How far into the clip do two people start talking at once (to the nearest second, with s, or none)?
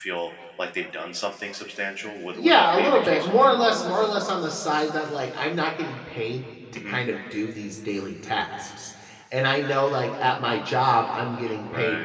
2 s